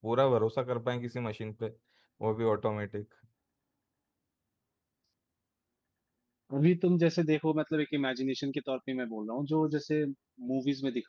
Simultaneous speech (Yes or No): No